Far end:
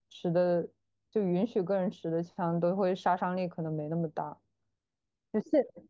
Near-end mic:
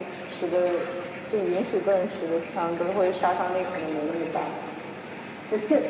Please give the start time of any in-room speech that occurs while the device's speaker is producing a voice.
none

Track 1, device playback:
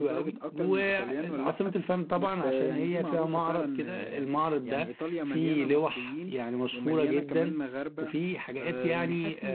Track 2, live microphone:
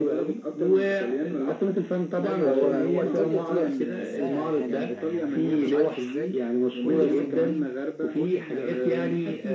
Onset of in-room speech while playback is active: 2.2 s

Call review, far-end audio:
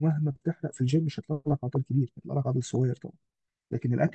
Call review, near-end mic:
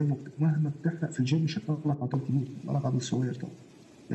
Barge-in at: none

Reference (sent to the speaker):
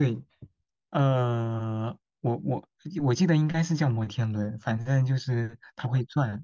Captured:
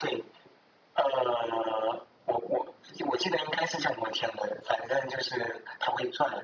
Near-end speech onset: none

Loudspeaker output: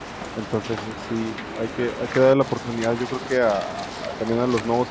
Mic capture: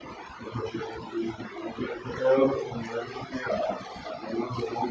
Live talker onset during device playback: none

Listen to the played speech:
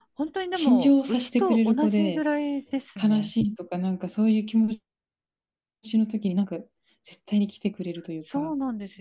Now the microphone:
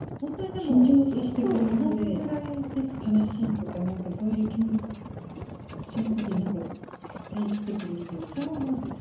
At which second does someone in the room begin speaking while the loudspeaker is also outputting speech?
none

